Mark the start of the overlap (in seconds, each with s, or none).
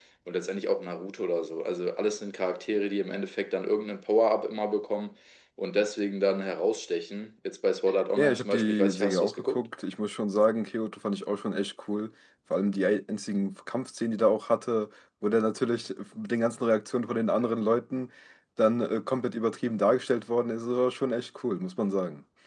8.2 s